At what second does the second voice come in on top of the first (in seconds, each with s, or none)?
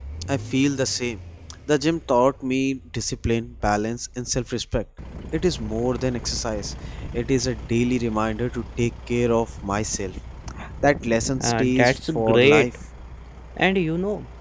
11.4 s